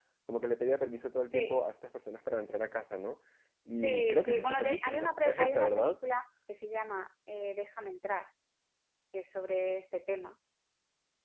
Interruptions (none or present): present